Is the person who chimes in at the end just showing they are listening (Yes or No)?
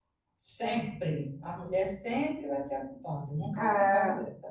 Yes